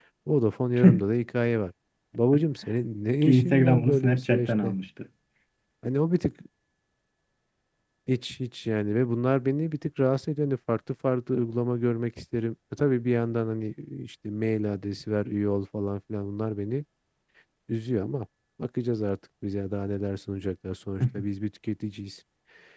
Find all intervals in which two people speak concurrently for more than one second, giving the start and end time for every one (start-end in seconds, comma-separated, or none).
3.2-4.7